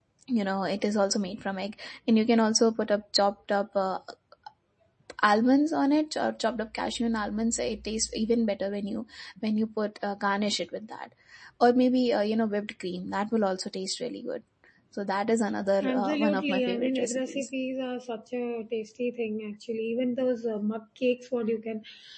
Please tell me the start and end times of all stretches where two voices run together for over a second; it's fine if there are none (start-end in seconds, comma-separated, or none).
15.9-17.5